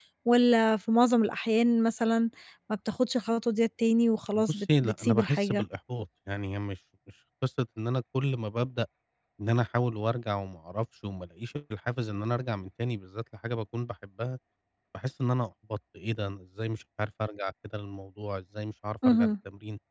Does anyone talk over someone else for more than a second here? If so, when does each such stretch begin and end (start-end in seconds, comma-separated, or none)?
4.4-5.6